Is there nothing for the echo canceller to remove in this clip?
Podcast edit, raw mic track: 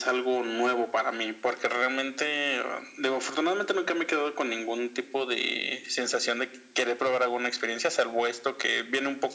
No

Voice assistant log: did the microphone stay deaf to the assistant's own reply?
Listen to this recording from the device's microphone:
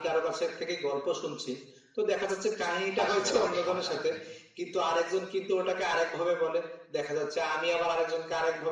No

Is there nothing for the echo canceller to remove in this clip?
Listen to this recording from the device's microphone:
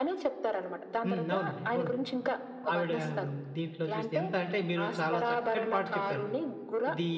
No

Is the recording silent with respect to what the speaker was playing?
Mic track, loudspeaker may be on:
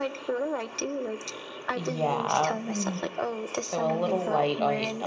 No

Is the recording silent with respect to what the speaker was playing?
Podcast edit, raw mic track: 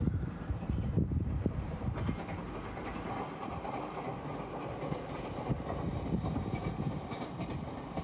Yes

